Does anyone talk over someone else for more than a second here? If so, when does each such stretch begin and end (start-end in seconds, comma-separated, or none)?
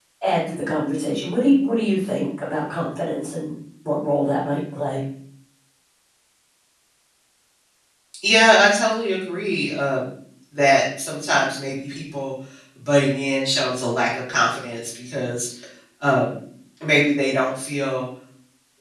none